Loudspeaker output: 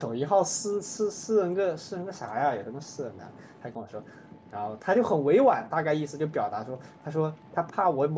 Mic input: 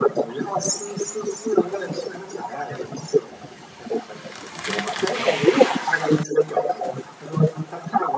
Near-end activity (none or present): none